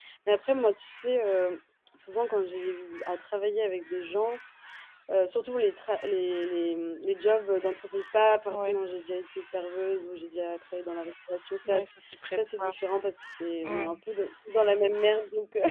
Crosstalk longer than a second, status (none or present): none